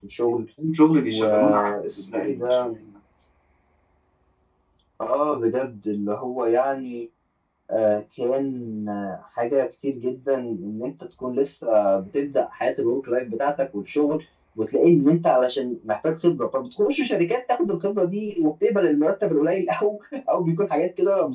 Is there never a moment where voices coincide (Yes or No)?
No